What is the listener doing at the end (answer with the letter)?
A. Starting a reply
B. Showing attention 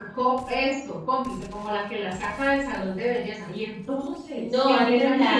A